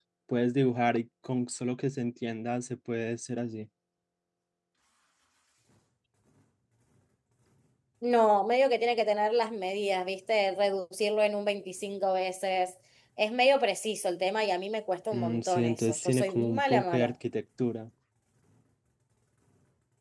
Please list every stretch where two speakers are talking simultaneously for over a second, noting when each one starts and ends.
15.1-17.1

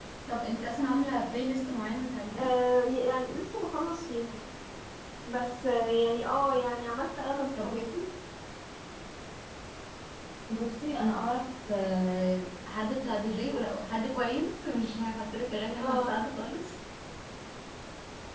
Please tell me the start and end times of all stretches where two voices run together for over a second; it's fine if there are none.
none

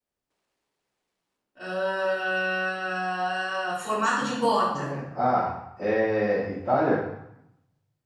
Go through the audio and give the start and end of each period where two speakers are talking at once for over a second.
none

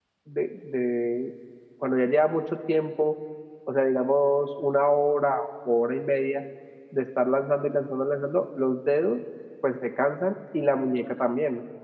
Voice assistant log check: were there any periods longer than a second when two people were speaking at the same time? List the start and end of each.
none

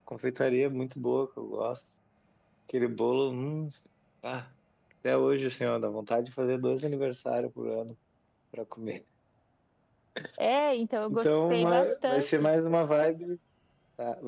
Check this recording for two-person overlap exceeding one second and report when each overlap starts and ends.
11.1-12.5

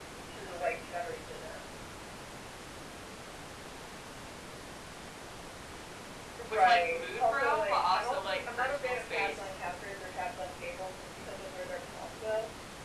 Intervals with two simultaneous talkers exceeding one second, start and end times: 6.5-9.4

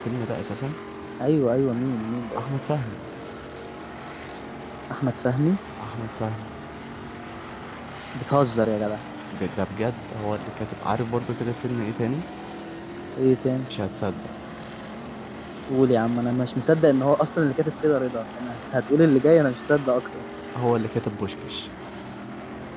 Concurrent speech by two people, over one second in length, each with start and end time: none

